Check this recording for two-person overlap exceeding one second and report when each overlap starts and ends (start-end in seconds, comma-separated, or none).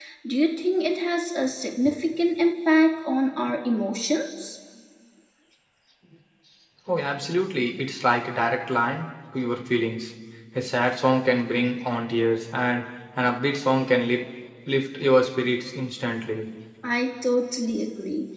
none